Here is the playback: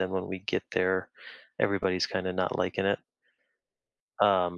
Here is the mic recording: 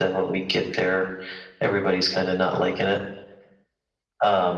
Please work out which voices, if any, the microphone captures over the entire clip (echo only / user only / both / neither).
echo only